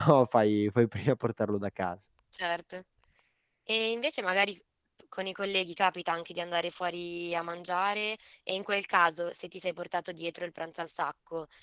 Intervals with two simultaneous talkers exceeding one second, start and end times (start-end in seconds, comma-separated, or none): none